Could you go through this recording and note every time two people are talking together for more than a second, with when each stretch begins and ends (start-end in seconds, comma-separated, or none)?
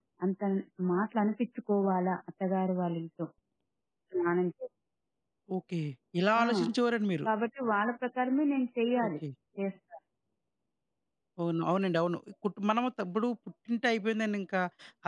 none